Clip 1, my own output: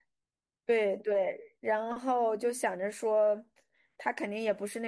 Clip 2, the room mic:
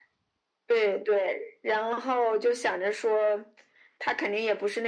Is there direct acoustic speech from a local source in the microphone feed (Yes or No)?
No